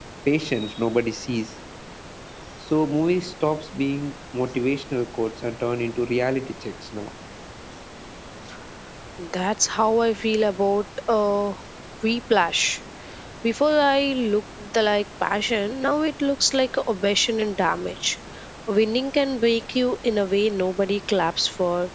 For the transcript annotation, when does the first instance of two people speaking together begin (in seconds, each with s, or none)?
none